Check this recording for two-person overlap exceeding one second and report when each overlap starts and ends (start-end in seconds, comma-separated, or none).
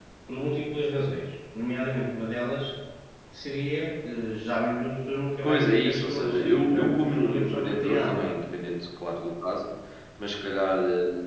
5.4-8.4